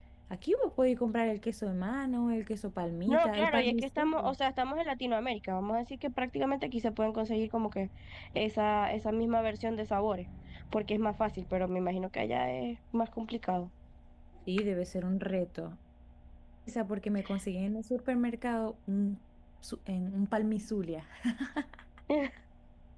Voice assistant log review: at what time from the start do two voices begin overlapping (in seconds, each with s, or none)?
3.1 s